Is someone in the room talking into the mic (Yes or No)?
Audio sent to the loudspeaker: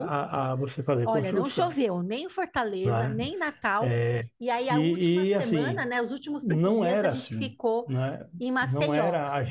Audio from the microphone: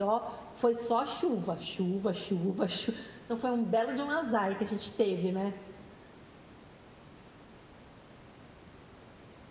Yes